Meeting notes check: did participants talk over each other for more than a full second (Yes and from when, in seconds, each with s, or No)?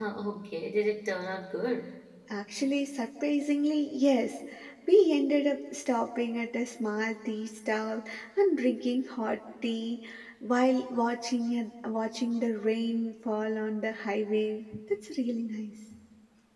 No